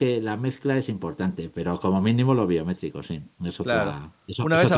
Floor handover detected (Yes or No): Yes